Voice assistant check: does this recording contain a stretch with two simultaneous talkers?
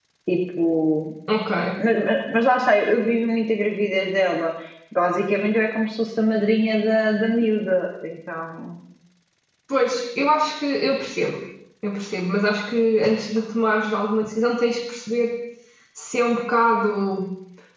No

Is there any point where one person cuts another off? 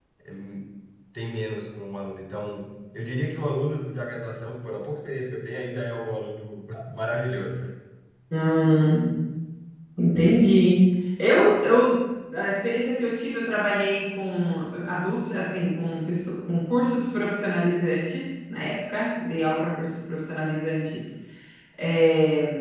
No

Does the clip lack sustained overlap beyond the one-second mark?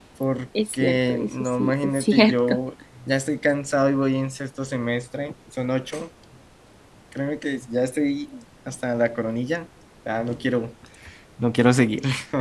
No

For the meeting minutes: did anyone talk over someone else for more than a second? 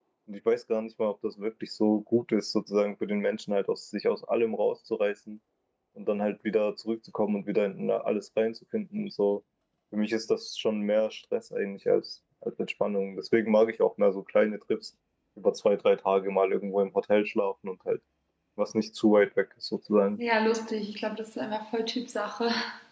No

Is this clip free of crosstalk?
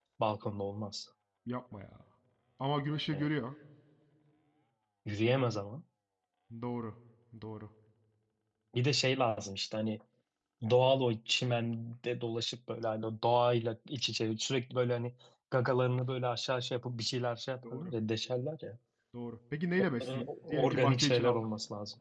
No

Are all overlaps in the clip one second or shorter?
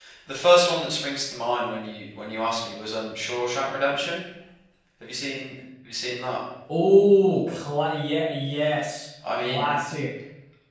Yes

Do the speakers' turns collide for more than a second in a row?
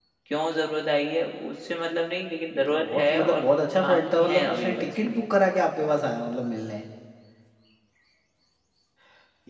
Yes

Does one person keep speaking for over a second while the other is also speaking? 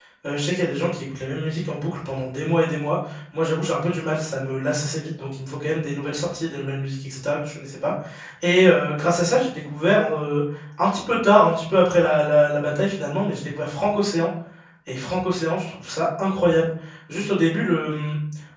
No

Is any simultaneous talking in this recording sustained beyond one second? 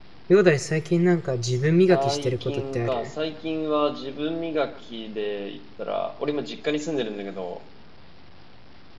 Yes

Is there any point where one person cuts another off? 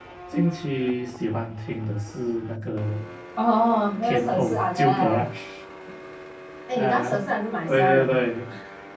Yes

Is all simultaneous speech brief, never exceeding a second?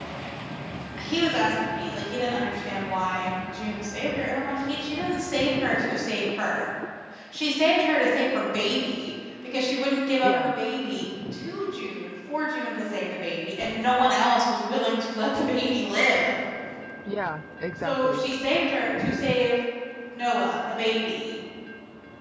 Yes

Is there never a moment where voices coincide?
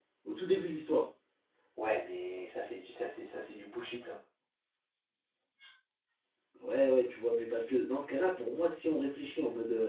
Yes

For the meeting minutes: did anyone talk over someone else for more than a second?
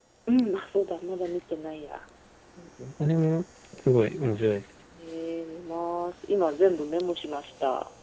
No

